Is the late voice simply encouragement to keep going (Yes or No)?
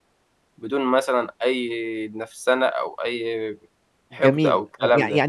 No